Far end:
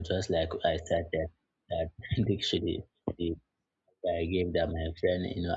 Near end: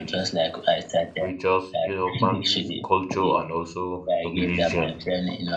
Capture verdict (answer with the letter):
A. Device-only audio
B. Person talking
B